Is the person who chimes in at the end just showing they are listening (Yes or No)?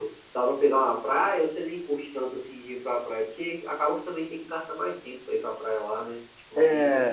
No